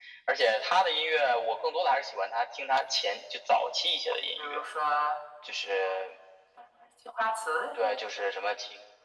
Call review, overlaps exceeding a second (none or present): none